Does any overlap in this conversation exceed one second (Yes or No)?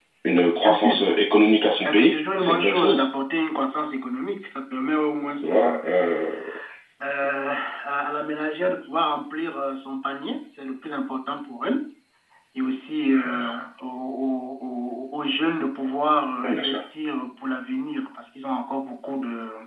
Yes